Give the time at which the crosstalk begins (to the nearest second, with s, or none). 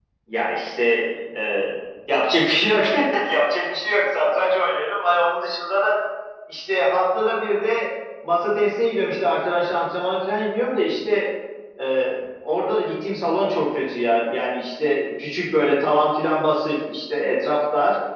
none